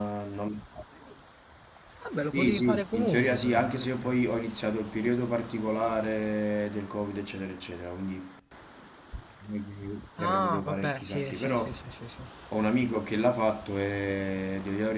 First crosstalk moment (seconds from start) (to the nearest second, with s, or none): 2 s